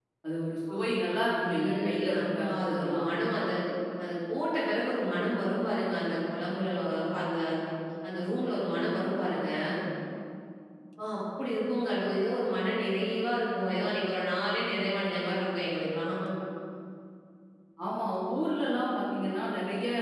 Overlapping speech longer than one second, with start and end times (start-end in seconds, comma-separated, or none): 1.4-3.1